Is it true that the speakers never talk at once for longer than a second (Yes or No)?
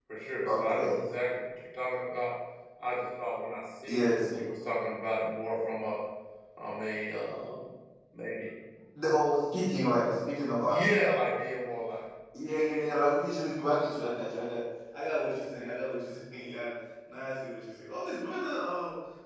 Yes